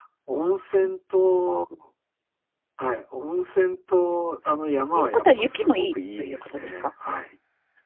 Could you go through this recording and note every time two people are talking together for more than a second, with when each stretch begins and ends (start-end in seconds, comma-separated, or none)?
4.9-6.9